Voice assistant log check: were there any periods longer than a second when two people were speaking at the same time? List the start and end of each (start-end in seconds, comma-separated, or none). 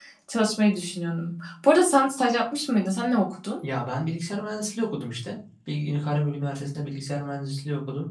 none